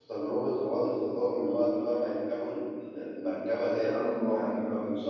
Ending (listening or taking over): listening